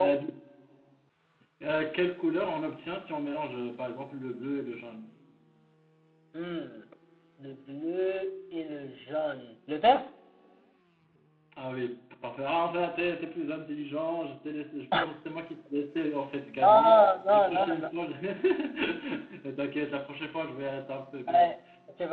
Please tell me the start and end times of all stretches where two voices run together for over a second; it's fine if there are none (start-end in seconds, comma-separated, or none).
16.6-17.9